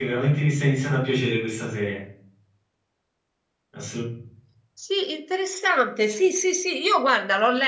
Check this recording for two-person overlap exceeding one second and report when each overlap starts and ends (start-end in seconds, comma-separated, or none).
none